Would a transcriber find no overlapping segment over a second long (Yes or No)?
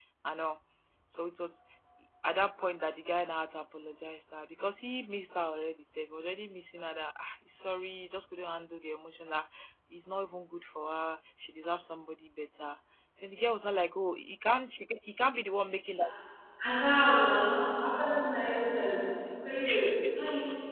Yes